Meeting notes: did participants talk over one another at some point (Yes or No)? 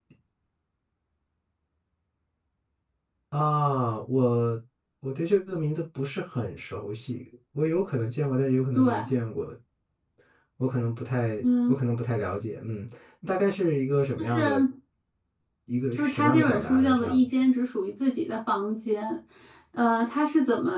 Yes